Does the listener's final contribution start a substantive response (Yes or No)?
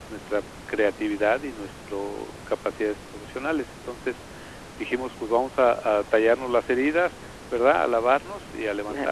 No